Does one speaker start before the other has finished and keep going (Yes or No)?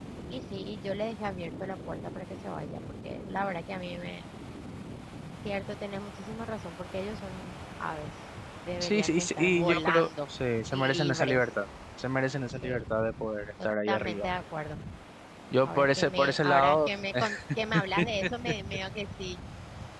Yes